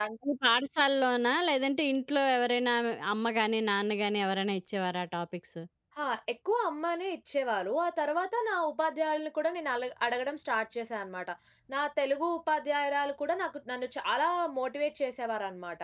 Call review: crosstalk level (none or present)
none